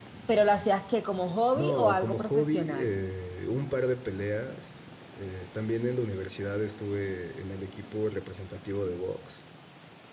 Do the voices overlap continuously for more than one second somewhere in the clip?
Yes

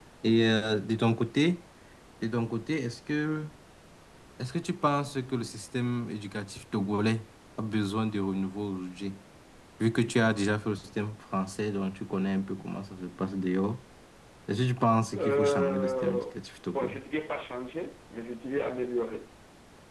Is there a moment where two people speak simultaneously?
Yes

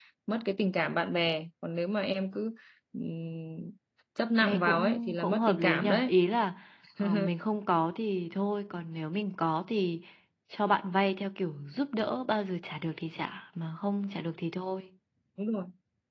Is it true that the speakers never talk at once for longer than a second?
No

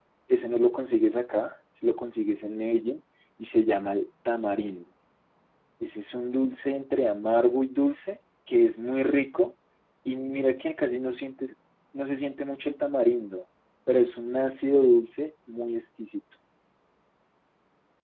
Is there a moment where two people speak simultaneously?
No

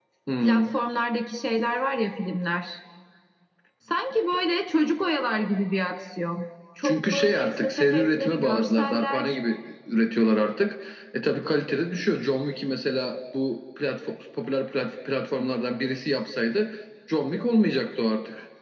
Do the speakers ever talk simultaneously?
Yes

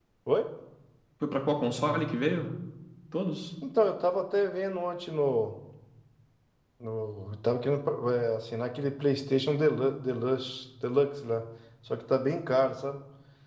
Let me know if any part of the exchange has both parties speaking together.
No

